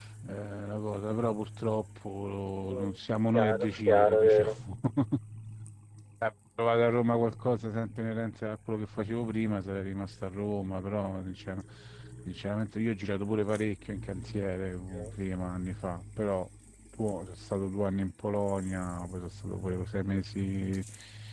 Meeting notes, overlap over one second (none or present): present